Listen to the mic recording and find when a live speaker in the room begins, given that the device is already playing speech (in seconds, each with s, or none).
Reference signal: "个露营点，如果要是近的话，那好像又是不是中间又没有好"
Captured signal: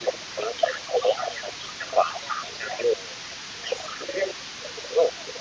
none